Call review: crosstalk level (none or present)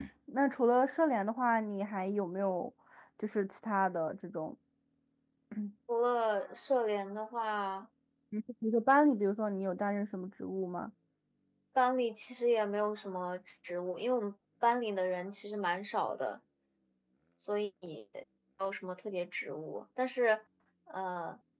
none